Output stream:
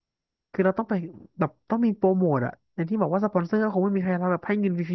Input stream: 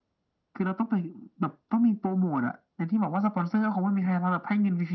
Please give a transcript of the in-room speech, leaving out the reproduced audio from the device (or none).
none